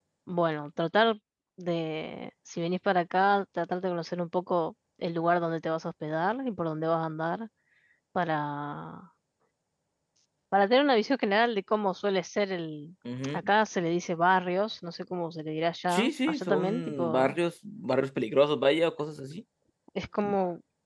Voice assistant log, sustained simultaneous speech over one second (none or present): present